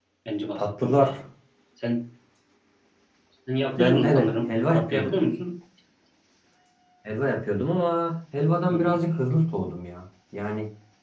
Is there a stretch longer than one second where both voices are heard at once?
Yes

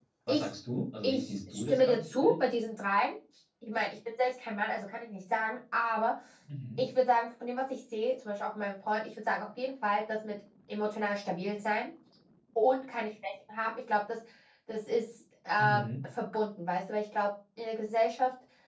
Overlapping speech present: Yes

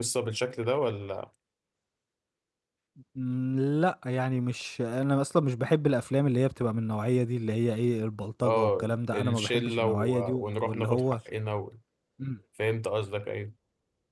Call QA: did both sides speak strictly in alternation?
No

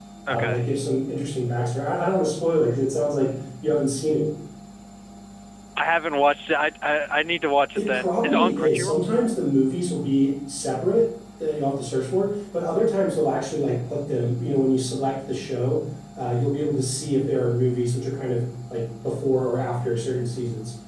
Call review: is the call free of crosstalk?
No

